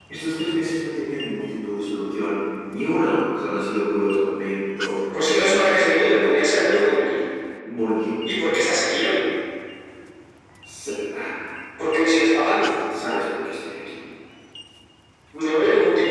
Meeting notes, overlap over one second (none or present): present